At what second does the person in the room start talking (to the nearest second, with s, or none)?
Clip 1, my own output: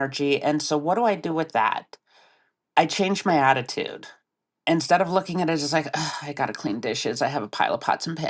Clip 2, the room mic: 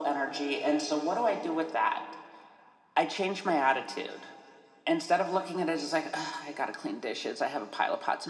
none